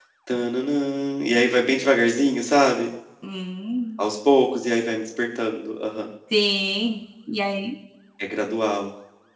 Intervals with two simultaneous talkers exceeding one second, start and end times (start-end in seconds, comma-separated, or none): none